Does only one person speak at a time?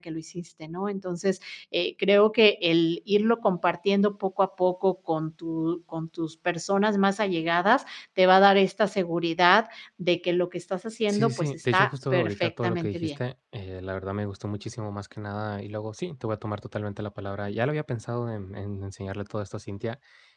No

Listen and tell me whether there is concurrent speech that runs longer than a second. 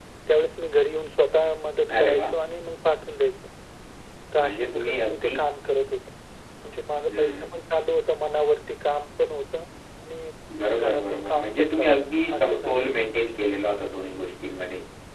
Yes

